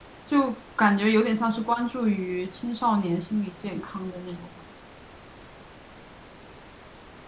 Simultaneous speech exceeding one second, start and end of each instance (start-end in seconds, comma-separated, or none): none